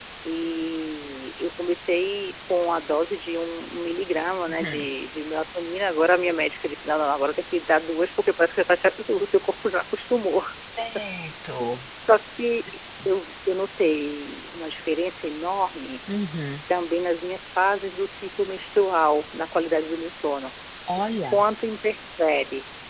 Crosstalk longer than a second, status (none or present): none